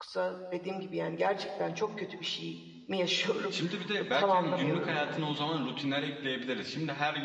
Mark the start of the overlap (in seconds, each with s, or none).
4.0 s